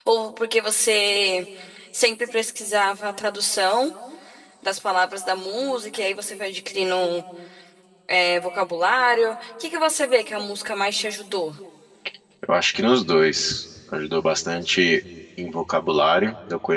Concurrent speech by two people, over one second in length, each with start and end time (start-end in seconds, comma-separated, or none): none